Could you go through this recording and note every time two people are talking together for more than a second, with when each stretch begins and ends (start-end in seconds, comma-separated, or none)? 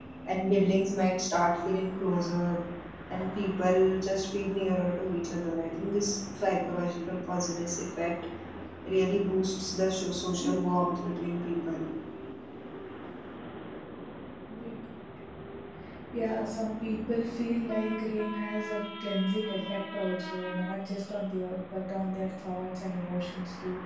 none